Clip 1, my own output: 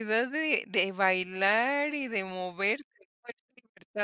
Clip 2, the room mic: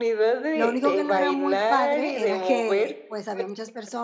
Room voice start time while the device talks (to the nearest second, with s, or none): 1 s